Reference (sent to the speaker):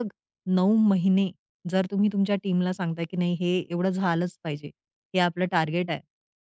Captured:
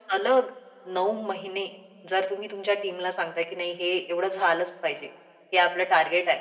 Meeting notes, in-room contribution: none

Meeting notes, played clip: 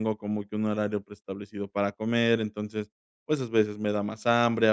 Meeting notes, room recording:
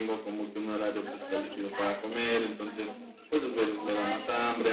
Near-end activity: present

